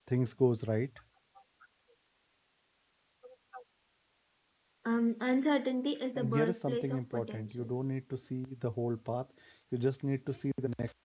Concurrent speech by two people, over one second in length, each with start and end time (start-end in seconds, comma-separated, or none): 6.2-7.7